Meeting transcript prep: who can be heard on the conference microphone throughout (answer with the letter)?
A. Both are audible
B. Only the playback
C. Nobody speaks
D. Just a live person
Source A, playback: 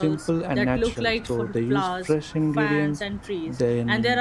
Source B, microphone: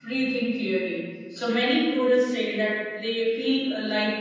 D